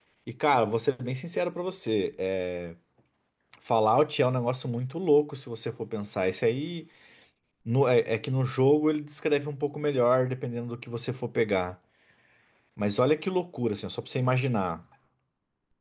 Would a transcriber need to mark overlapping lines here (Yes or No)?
No